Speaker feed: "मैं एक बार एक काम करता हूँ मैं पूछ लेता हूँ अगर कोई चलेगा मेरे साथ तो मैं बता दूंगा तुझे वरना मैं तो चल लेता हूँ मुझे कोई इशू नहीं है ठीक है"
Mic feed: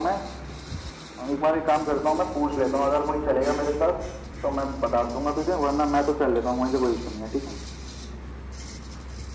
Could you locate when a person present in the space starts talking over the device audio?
none

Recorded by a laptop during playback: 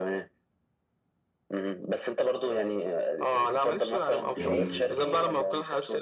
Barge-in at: 4.4 s

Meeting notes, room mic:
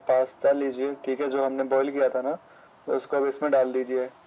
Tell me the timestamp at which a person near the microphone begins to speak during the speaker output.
none

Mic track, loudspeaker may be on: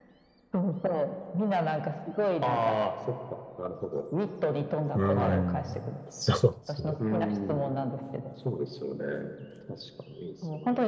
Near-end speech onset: 4.9 s

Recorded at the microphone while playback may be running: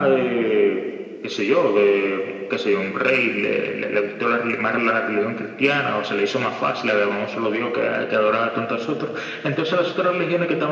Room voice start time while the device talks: none

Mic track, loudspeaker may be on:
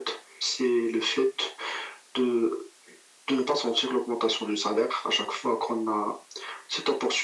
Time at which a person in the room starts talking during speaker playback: none

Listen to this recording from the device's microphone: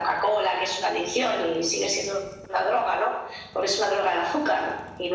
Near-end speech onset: none

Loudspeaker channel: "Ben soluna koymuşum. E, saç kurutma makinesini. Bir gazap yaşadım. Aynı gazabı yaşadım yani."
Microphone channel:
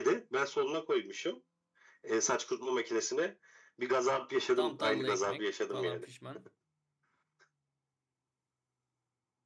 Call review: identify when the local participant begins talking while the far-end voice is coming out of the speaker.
4.5 s

